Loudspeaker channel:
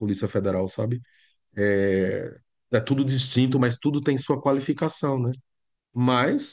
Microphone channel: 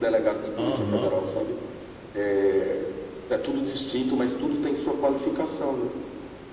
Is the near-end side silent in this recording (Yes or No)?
No